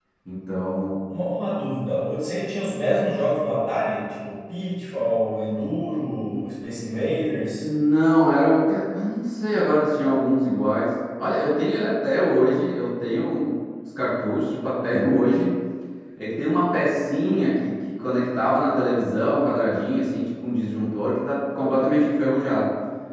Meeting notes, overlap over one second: none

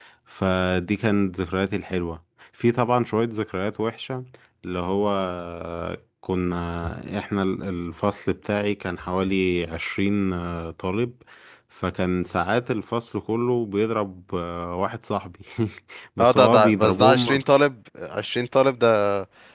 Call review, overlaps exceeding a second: present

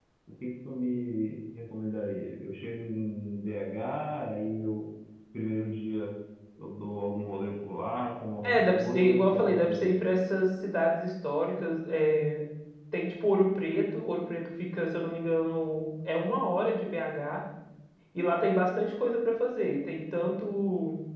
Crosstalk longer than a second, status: present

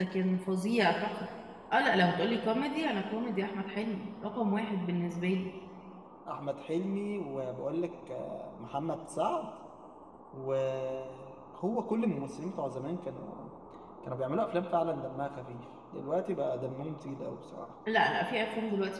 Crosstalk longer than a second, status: none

